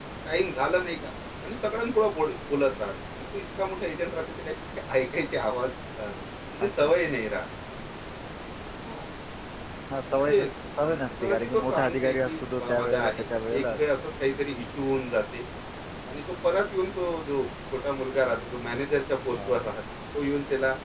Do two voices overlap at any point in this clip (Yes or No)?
Yes